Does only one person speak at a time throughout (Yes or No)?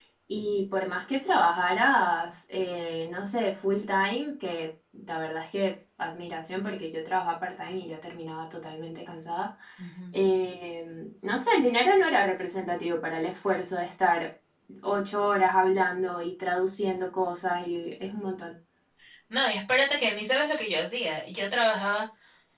Yes